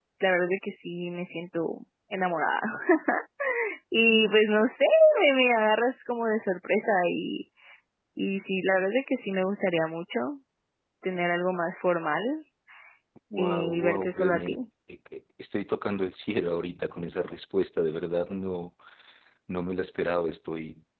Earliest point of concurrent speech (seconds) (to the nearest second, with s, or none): 13 s